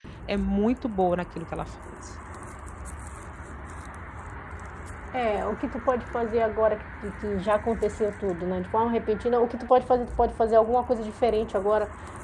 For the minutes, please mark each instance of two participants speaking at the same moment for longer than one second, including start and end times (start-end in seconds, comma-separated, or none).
none